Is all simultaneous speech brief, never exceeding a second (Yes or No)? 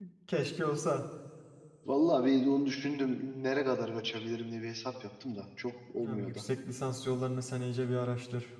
Yes